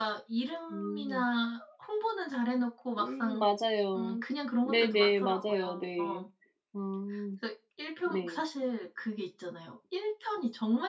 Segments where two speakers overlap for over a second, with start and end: 4.6-6.2

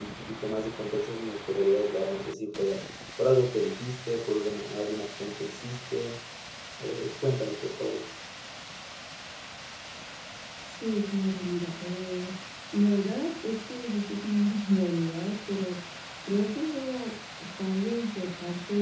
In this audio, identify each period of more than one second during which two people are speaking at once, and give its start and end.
none

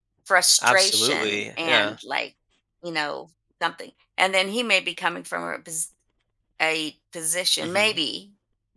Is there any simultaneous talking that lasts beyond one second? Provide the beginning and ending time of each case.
0.6-1.9

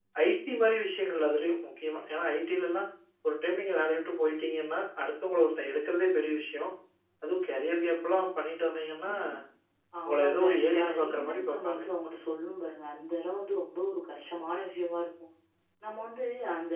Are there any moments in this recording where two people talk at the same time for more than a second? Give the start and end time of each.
10.1-11.8

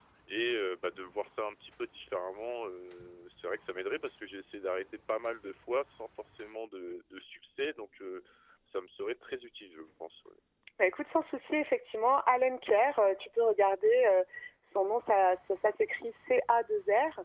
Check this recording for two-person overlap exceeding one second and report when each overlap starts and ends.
none

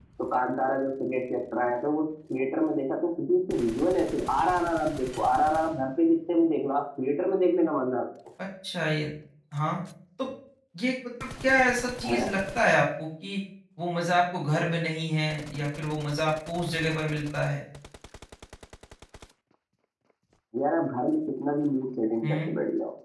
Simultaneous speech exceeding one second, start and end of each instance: none

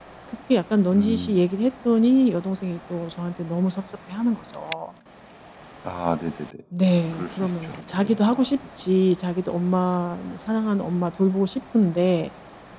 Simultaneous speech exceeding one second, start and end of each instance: 7.1-8.5

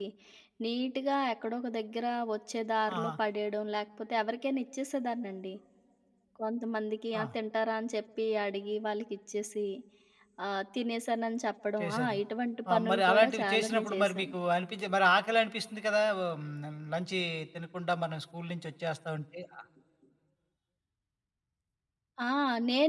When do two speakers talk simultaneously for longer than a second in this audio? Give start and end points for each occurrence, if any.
12.7-14.3

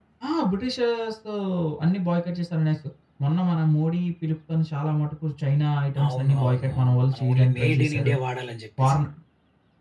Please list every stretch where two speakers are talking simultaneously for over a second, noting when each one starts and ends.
6.0-8.1

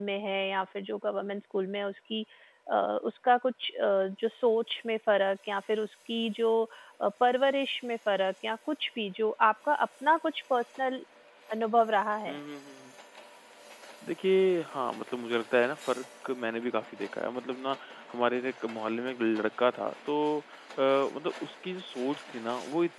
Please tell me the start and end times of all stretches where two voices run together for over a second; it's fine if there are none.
none

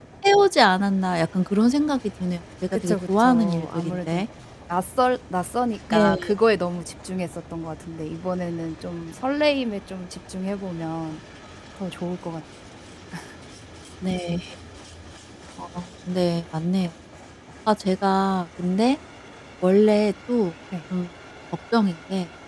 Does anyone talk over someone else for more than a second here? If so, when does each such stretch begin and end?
2.7-4.2

